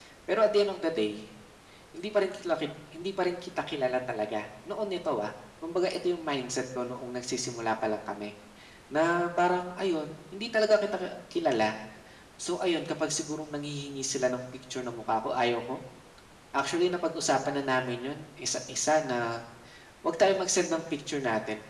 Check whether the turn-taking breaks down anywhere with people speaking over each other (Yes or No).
No